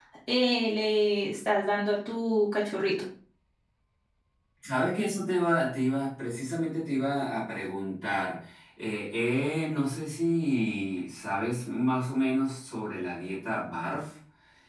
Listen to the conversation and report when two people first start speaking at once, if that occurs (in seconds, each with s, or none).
none